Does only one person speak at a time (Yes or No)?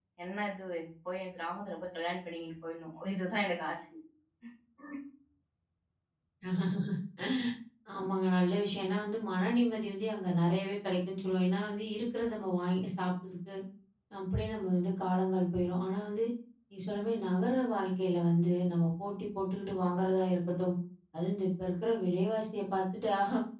Yes